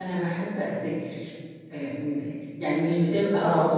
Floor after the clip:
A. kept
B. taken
A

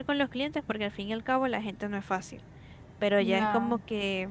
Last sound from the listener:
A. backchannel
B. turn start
A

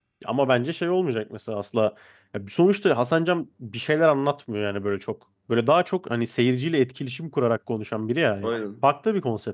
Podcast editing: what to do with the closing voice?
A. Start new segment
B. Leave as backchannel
B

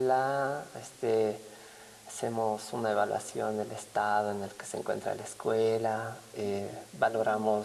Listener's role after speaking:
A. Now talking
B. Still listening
B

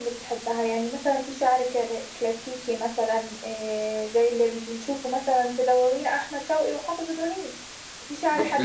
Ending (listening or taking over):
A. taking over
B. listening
B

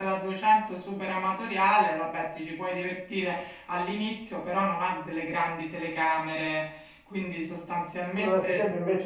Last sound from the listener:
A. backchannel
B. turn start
B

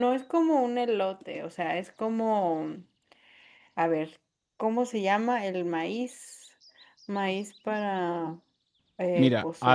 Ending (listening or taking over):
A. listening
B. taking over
B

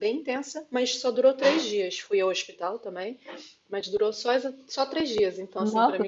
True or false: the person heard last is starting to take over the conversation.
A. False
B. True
B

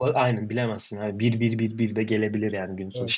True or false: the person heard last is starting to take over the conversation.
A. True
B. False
B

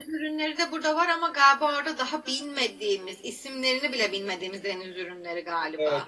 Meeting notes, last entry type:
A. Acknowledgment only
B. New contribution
B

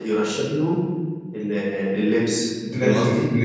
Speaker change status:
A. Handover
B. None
A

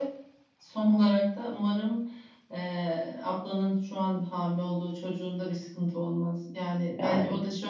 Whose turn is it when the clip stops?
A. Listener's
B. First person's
B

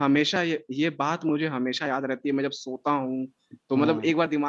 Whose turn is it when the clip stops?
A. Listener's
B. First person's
B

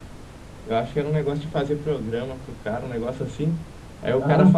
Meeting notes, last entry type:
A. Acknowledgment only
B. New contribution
A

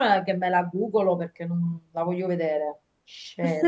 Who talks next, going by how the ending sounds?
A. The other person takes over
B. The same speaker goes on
A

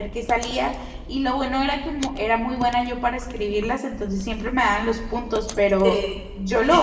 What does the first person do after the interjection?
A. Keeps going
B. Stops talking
A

